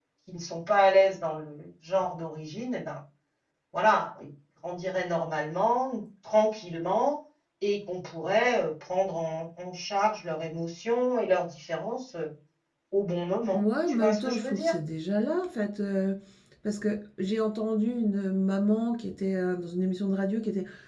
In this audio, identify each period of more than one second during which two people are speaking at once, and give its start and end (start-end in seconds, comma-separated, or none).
13.5-14.8